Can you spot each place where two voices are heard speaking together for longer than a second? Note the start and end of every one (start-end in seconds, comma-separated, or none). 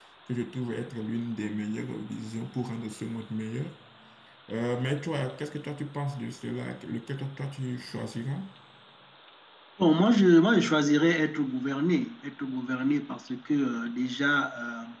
none